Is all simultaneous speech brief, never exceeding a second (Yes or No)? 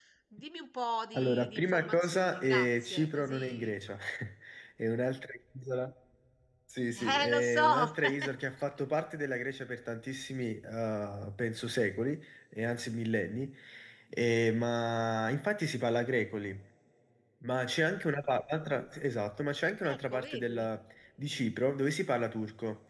No